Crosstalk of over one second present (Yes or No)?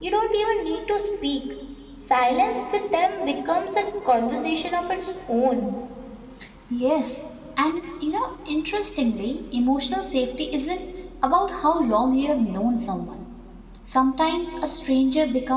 No